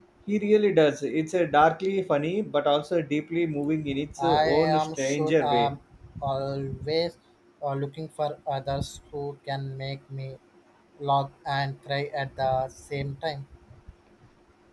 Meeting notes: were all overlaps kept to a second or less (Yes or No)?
No